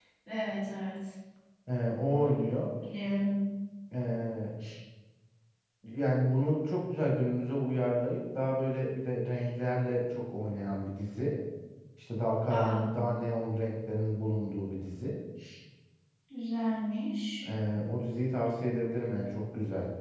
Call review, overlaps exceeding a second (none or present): none